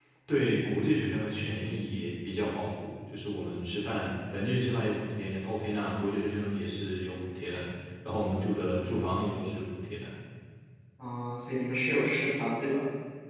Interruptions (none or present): none